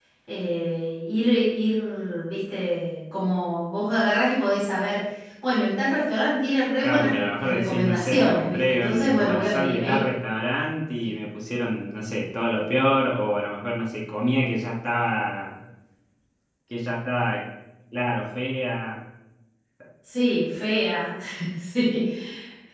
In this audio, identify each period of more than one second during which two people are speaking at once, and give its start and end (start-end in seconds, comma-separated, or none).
6.8-10.0